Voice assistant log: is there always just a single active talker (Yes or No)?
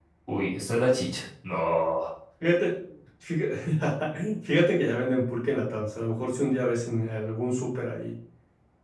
Yes